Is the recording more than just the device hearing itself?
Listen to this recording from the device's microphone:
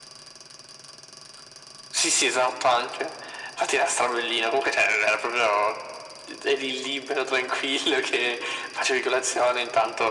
No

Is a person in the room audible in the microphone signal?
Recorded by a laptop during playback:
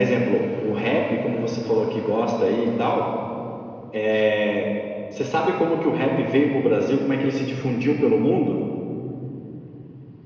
No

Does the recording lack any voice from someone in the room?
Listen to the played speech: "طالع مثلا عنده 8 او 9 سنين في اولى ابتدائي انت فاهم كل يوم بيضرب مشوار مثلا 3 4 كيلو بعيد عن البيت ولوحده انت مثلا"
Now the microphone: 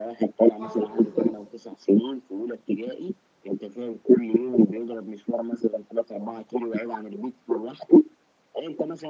No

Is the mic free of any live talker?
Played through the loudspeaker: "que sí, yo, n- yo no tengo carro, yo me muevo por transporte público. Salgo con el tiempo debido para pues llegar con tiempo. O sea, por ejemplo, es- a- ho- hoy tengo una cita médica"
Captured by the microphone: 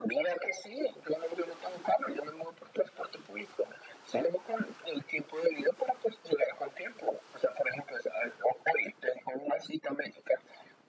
Yes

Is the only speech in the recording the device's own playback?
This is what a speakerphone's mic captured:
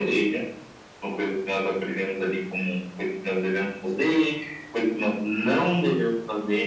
Yes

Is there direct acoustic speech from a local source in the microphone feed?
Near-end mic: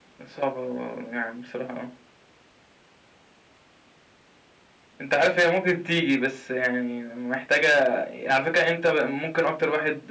Yes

